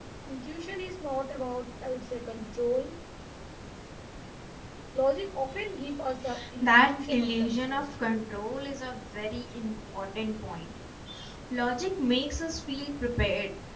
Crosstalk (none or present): present